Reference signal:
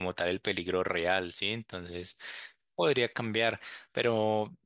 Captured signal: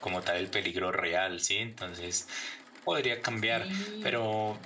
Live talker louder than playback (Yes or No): No